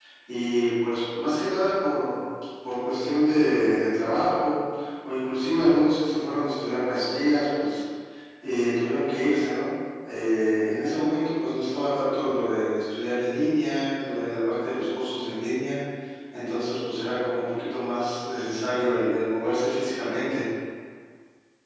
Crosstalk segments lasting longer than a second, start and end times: none

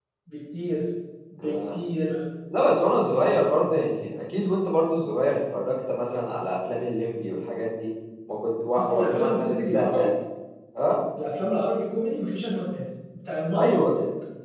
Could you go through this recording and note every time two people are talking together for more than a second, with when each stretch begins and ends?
8.8-10.1

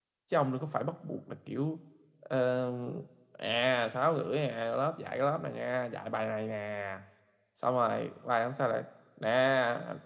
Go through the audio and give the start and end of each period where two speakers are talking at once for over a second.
none

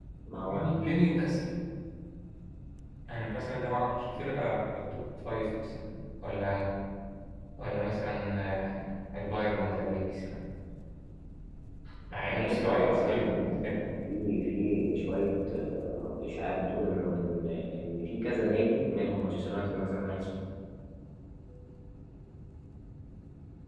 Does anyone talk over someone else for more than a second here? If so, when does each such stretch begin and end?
12.3-13.8

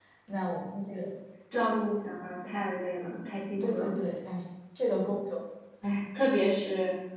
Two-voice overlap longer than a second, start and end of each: none

